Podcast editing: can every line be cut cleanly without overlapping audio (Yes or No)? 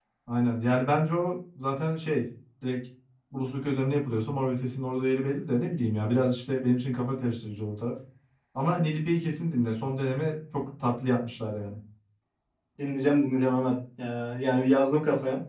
Yes